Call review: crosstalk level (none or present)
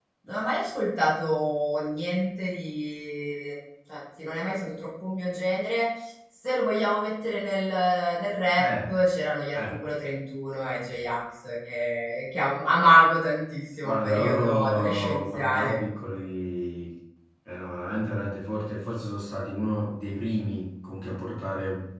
present